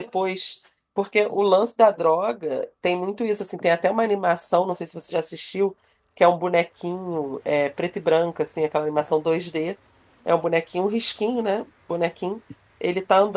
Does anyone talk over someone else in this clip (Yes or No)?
No